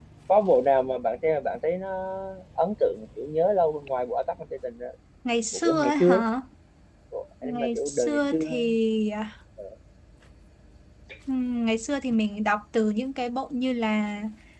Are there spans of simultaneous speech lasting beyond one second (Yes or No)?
Yes